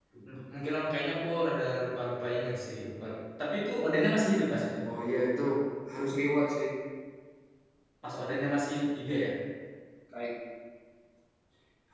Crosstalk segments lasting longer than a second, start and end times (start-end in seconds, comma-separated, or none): none